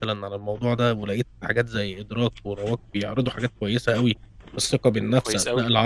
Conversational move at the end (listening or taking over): listening